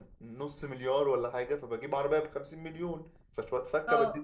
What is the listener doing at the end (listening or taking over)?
taking over